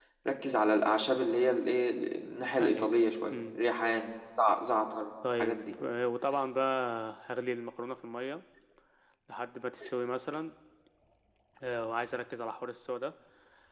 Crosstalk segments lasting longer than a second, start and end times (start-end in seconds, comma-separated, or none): none